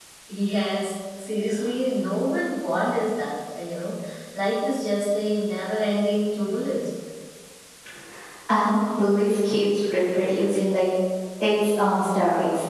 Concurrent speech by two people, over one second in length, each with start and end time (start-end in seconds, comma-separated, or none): none